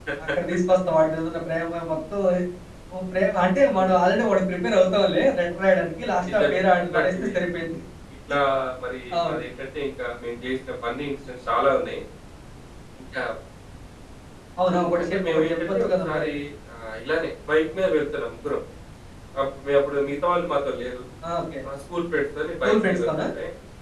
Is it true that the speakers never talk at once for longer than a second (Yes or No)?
No